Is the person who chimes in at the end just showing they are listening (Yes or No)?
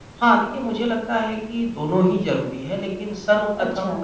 Yes